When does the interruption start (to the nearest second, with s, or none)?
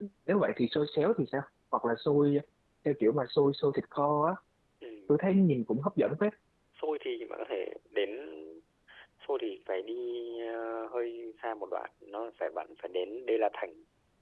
none